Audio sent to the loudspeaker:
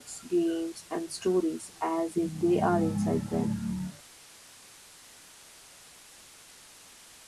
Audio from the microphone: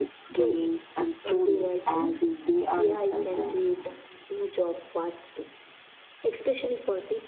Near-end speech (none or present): present